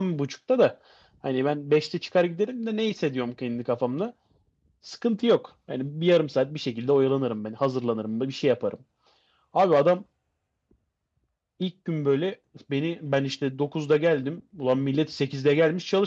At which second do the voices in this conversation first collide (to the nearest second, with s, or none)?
none